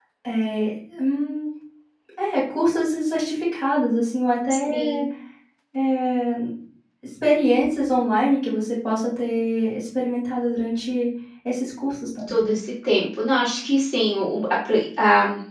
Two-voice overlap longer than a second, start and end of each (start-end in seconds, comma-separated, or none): none